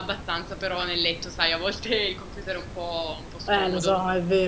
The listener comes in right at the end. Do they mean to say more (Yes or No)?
Yes